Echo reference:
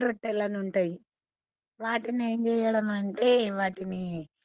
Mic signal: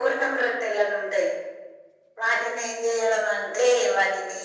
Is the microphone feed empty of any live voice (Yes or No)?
Yes